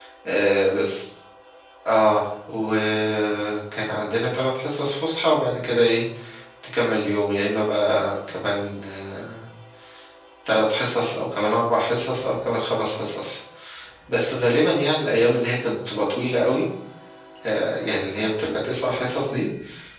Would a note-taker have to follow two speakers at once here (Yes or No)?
No